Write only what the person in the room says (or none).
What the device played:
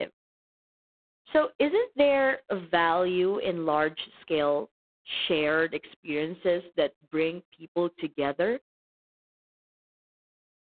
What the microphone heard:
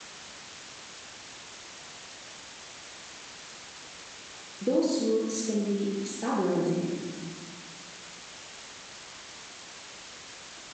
those roots can be stabilizing.